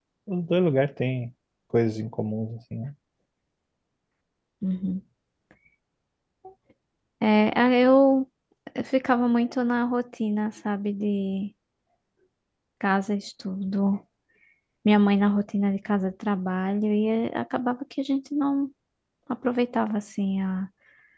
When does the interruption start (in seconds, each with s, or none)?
none